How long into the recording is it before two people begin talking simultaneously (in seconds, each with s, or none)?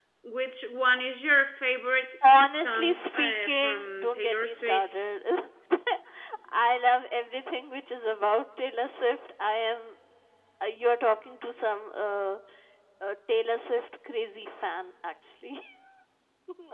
2.6 s